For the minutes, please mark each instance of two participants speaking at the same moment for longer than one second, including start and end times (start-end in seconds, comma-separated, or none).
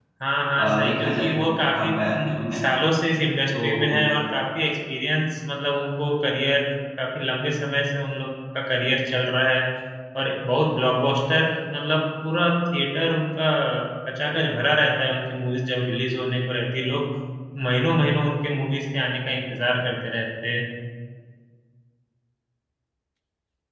0.6-2.6